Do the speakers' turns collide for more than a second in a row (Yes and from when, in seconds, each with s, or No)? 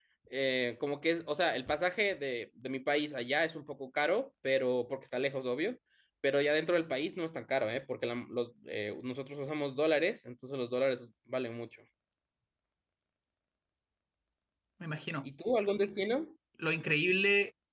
No